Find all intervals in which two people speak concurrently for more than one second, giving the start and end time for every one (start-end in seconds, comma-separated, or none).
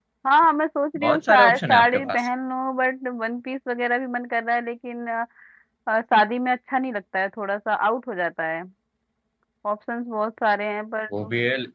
1.0-2.3